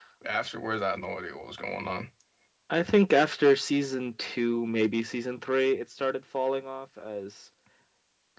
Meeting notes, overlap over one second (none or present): none